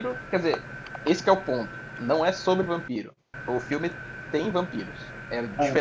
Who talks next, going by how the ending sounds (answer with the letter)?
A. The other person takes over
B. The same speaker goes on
B